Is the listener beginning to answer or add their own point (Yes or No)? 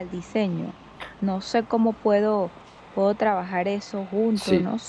Yes